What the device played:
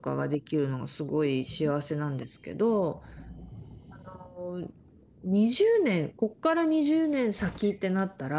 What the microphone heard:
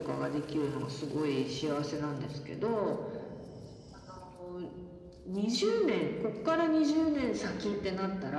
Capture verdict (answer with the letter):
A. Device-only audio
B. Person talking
A